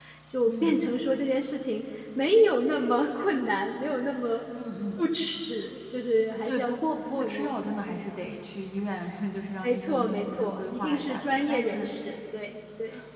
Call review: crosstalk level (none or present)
present